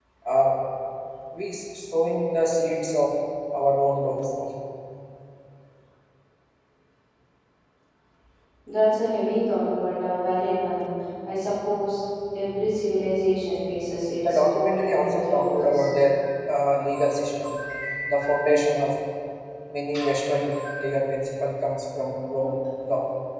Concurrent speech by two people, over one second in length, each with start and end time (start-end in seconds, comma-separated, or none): 14.2-15.9